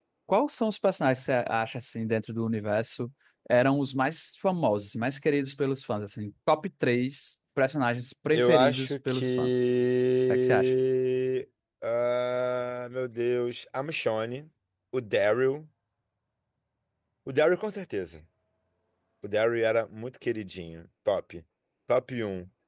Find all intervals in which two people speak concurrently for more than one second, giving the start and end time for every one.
8.3-9.6

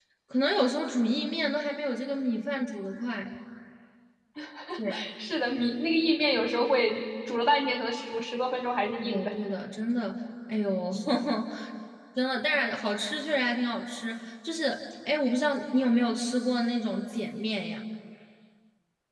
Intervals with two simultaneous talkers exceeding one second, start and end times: none

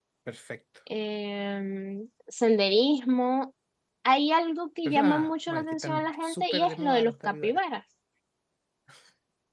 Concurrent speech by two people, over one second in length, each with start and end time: 4.8-7.6

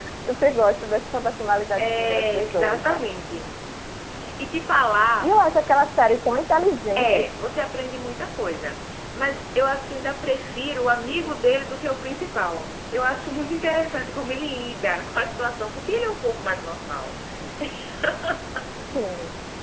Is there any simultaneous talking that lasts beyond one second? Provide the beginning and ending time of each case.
1.8-3.0

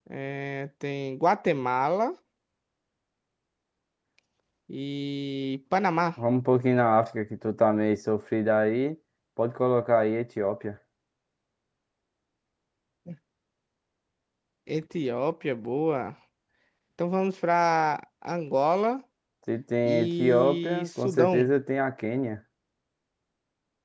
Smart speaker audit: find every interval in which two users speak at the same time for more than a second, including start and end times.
19.9-21.5

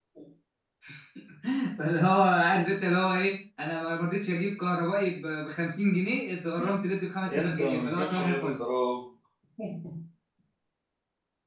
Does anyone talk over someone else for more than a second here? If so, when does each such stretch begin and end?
7.3-8.6

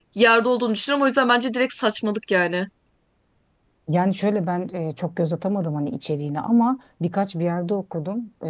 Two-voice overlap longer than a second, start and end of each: none

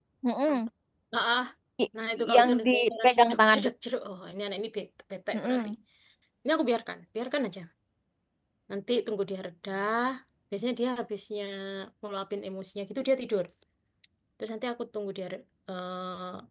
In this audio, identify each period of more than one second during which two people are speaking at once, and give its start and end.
2.4-3.6

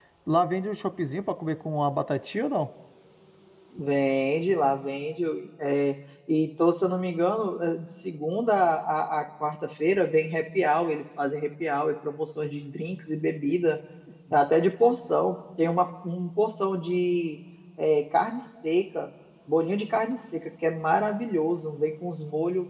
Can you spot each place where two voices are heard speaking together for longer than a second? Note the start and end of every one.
none

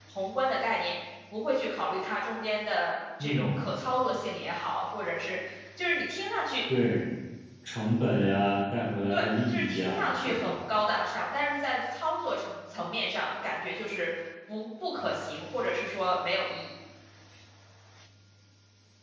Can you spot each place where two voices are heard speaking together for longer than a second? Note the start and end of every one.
9.1-10.5

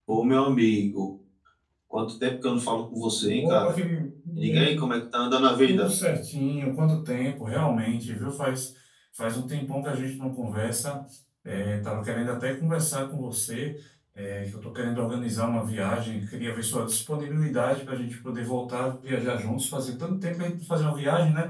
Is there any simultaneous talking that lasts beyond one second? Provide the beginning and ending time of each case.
none

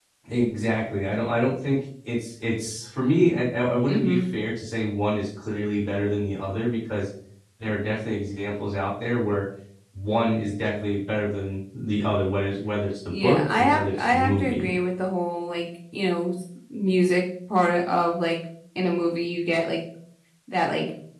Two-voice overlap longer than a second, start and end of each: 13.1-14.7

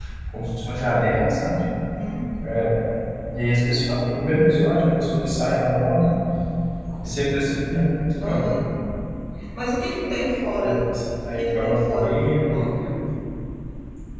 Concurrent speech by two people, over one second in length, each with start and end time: 11.4-12.9

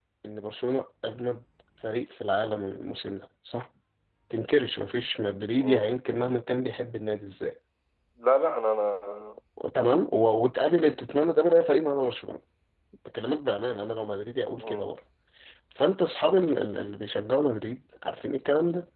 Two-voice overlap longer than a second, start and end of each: none

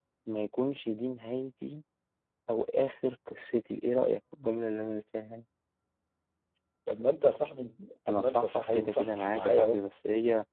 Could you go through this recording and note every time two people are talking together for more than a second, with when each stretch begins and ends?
8.1-9.8

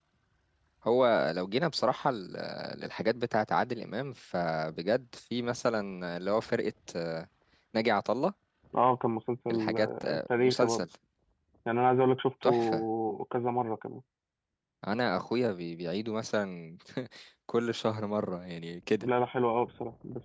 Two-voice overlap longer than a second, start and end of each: 9.5-10.8

